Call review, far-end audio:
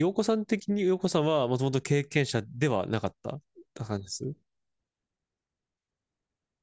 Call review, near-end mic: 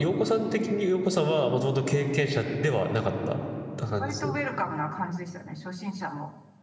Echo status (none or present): present